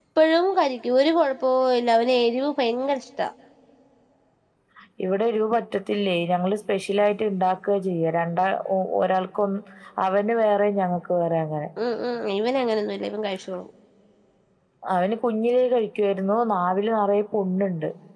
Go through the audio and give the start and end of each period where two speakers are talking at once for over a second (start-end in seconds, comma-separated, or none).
none